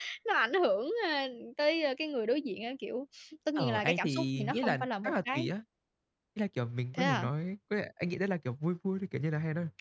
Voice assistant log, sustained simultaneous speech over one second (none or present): present